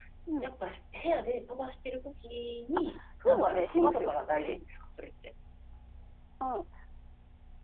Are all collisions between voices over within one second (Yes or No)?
No